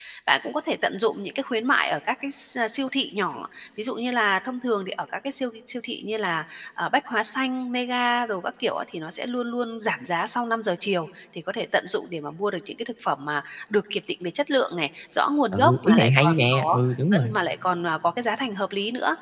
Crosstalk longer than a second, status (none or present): present